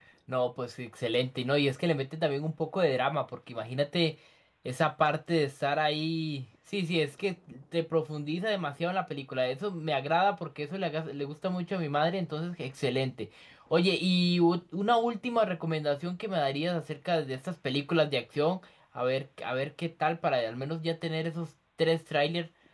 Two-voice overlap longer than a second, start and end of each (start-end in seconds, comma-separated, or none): none